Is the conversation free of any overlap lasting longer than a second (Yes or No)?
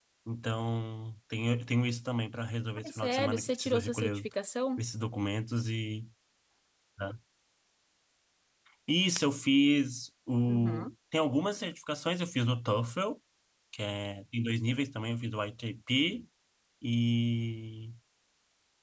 No